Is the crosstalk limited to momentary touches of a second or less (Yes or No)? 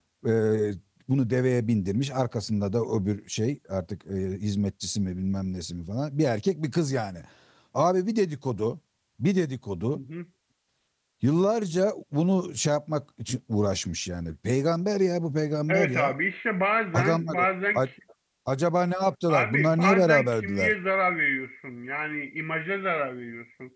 No